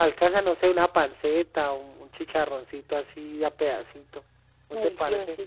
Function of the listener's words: taking over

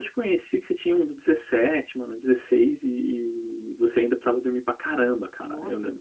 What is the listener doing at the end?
taking over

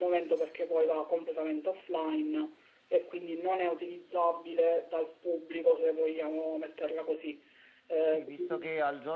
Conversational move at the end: taking over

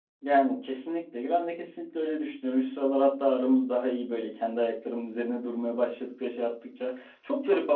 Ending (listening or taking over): listening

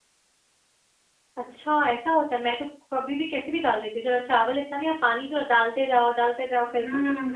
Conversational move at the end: taking over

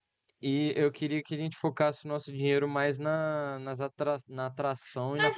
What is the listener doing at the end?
taking over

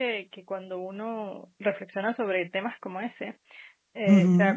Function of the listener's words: listening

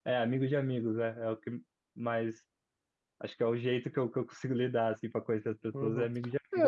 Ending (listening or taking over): taking over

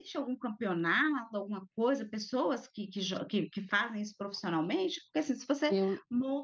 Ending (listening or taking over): taking over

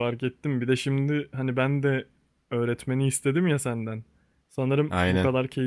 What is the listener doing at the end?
listening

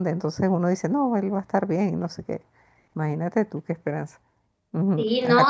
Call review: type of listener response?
taking over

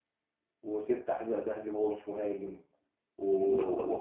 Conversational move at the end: listening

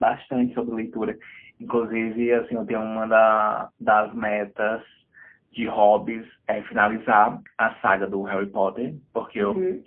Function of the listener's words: listening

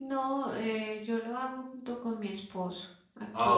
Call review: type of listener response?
taking over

